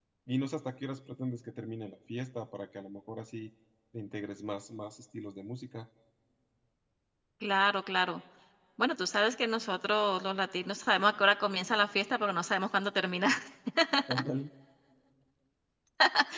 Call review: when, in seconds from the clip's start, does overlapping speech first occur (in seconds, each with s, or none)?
none